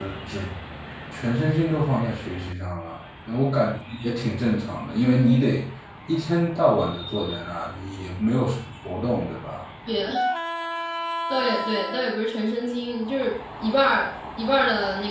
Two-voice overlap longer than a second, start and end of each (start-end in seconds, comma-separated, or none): none